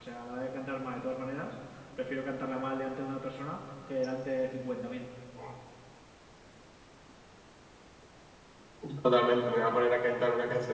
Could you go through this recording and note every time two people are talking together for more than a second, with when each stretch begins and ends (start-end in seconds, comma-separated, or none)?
none